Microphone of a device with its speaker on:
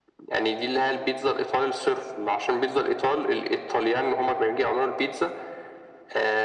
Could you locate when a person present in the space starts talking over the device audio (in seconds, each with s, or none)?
none